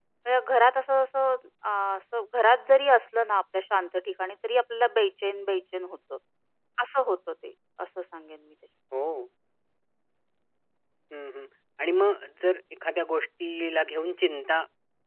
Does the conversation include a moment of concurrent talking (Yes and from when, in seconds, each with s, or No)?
No